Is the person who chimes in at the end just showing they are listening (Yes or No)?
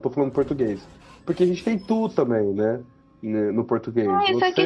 No